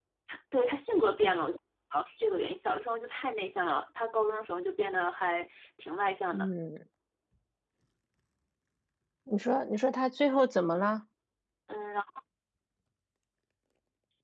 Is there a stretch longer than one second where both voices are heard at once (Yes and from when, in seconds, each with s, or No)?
No